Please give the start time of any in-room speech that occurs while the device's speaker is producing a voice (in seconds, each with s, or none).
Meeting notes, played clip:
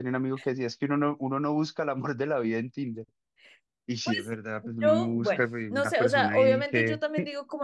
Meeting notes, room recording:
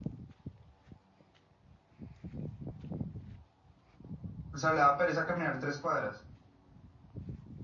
4.5 s